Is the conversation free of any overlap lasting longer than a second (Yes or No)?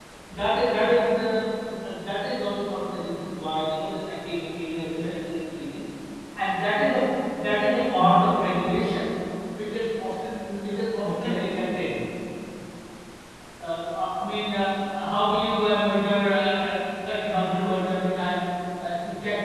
Yes